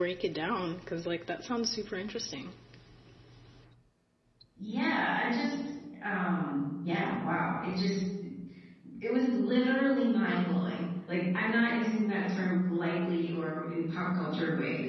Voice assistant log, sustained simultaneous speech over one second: none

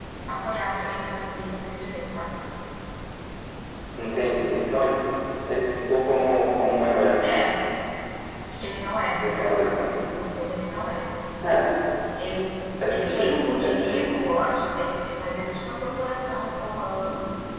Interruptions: present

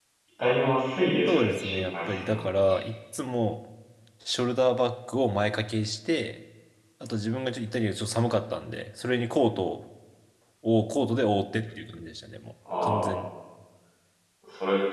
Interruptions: present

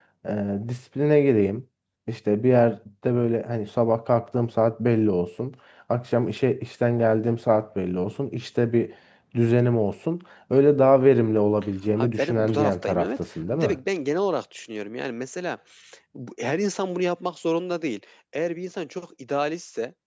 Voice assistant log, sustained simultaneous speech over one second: present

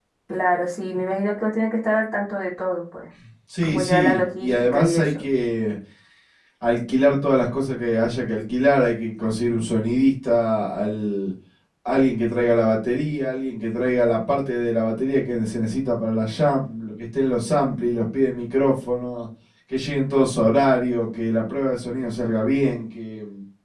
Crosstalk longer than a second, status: present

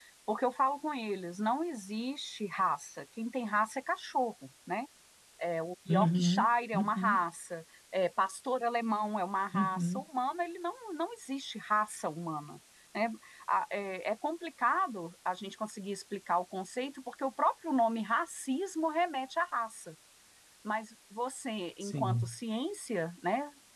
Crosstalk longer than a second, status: present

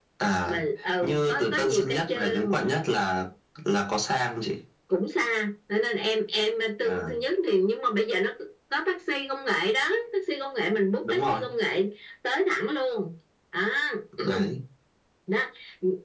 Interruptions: present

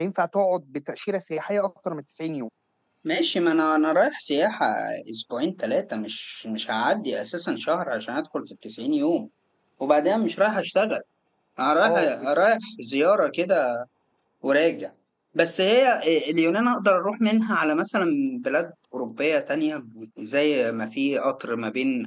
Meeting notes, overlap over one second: none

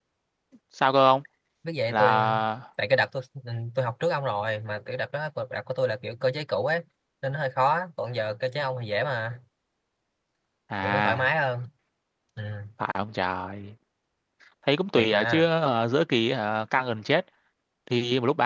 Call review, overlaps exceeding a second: none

